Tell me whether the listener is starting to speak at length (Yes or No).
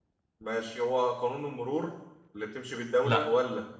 No